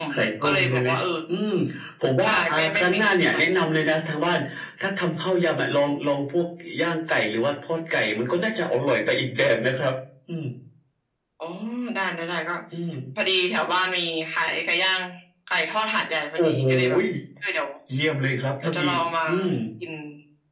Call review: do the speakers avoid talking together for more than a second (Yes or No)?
No